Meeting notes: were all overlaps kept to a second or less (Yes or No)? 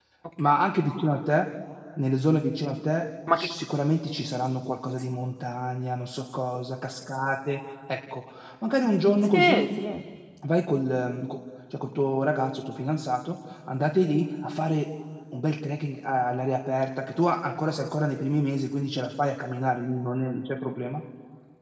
Yes